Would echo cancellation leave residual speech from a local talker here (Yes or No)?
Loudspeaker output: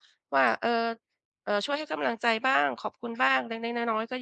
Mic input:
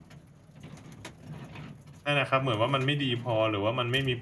Yes